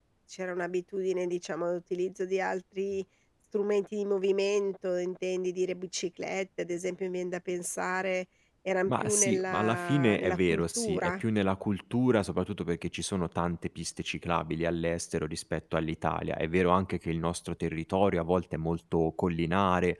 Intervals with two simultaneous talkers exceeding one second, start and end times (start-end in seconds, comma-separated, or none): 8.9-11.2